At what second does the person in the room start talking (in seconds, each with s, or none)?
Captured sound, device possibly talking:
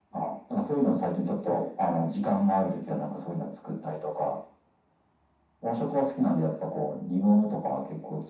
none